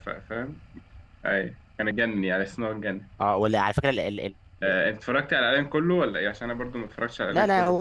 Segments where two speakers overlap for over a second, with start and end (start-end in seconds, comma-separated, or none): none